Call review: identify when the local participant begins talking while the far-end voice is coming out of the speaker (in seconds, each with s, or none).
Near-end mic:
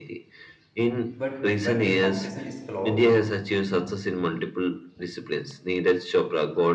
1.2 s